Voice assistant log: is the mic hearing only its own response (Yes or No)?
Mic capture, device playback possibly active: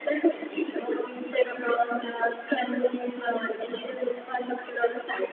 Yes